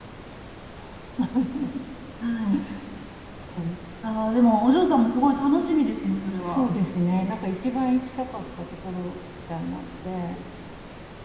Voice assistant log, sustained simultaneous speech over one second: none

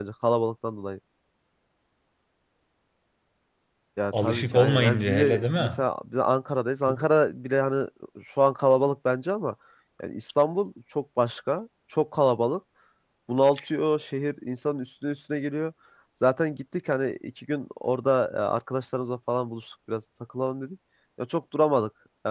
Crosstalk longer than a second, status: present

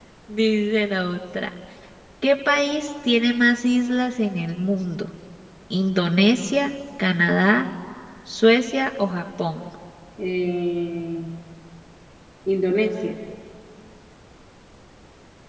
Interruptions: none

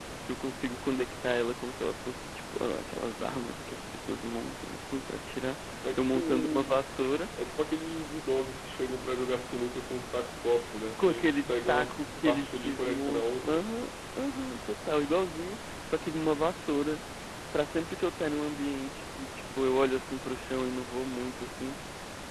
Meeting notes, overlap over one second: present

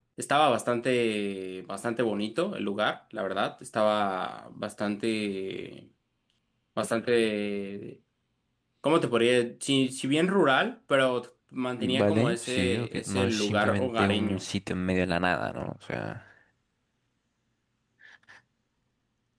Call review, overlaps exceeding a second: present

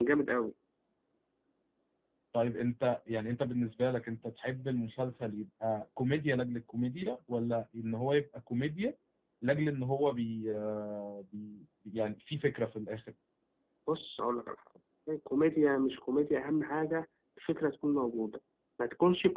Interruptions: none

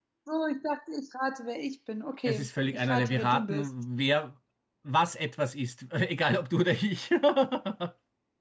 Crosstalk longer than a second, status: present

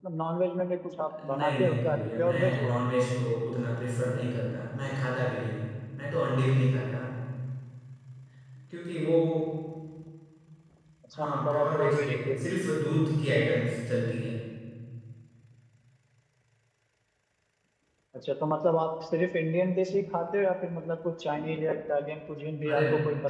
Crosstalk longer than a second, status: present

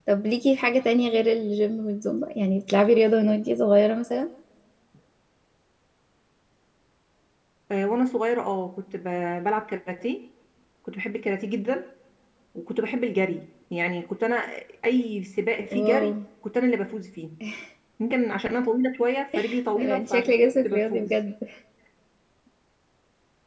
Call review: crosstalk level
present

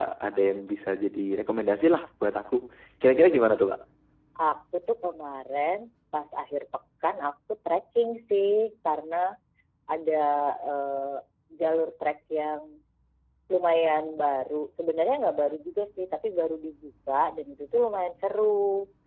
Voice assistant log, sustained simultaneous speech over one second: none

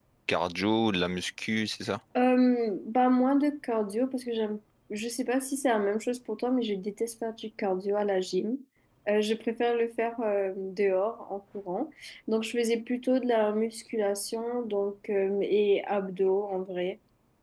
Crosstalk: none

